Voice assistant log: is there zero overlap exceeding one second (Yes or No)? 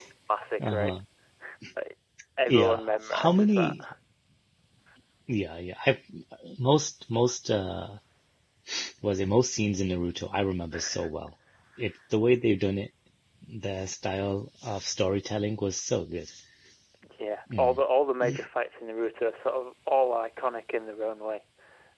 No